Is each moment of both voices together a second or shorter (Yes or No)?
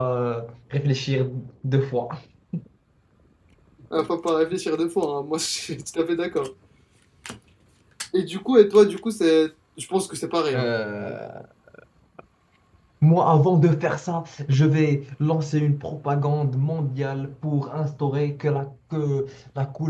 Yes